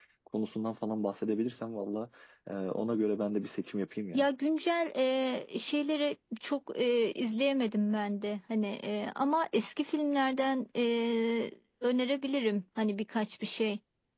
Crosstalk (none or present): none